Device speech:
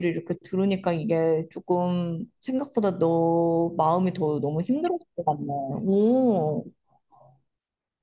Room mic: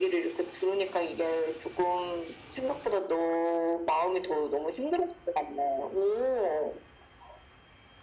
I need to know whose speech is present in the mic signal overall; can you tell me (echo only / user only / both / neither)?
echo only